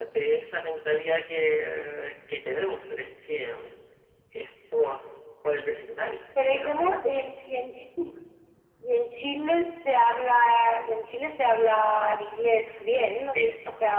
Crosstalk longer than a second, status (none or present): none